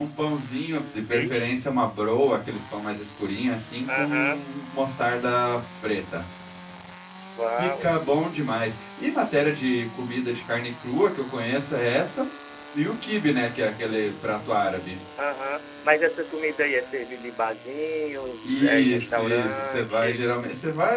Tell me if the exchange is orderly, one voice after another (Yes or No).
No